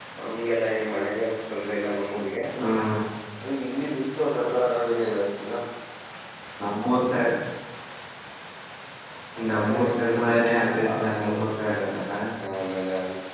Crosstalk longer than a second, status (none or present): present